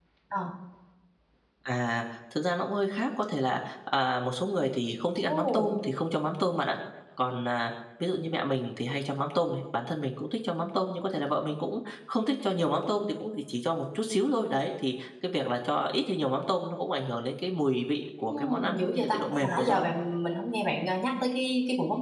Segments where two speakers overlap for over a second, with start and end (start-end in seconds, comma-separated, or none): 18.2-19.9